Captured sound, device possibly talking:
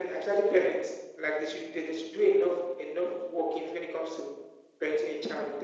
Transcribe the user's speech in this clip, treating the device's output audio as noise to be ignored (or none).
none